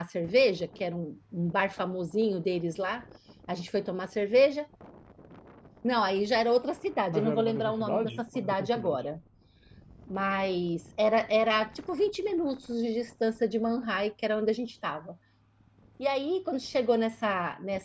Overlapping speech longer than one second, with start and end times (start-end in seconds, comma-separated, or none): 7.1-9.0